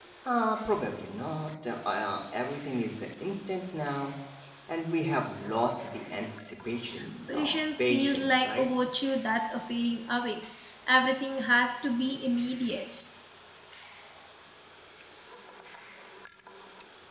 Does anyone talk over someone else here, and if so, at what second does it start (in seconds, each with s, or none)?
7.3 s